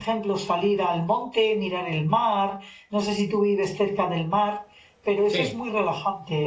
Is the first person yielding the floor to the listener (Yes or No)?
No